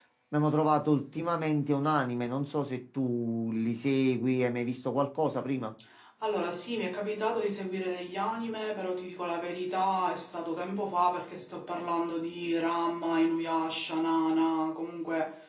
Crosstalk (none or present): none